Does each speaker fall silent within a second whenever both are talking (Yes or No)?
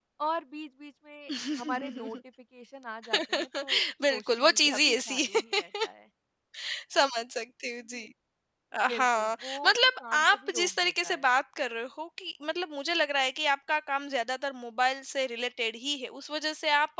No